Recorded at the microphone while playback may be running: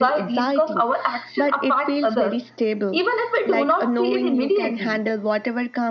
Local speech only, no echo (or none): none